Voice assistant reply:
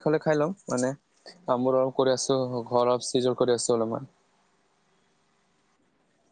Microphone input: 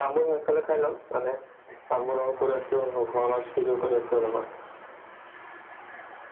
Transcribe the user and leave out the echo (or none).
none